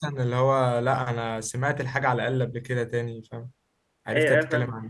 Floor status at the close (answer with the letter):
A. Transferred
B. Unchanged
A